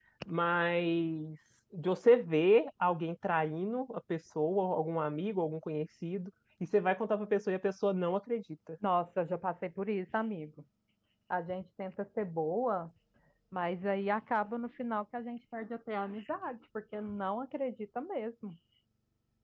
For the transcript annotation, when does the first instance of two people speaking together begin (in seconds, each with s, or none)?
none